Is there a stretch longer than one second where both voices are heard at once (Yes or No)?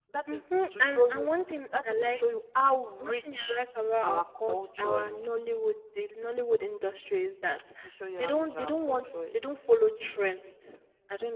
Yes